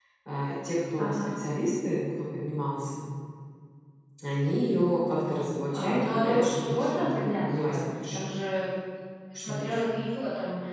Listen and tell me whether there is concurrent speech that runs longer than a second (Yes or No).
Yes